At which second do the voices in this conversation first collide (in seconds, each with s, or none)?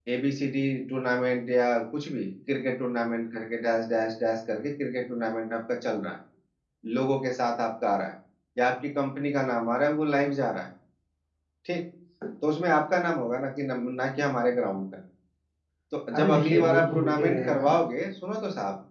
16.1 s